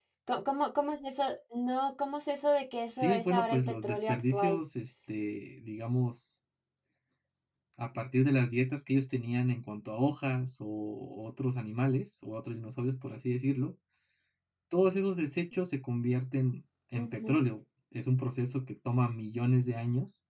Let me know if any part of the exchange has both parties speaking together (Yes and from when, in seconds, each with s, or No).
Yes, from 2.9 s